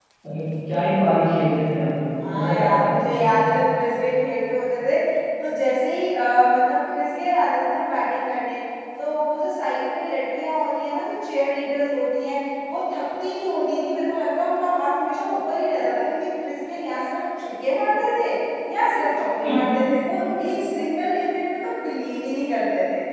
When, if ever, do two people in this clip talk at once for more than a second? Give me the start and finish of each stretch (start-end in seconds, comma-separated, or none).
2.3-3.6